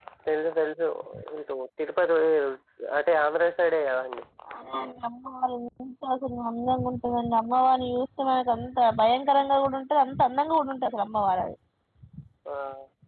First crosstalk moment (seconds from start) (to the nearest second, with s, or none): none